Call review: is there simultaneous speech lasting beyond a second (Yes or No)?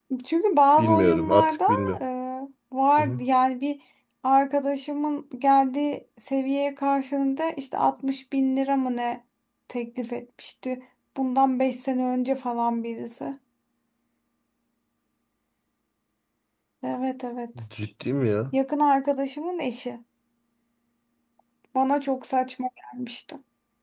Yes